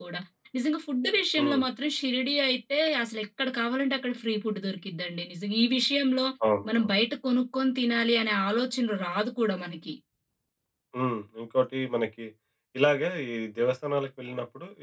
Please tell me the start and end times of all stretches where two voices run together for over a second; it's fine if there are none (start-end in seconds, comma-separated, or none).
none